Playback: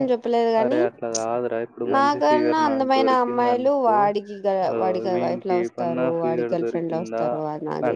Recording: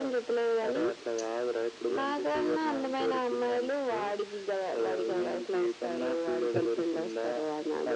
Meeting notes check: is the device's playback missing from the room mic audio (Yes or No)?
No